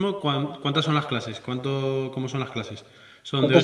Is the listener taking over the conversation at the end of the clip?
Yes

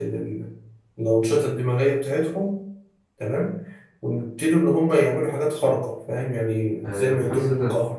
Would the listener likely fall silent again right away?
No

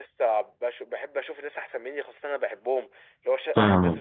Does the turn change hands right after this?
No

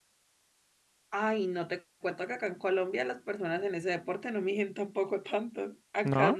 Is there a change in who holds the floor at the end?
No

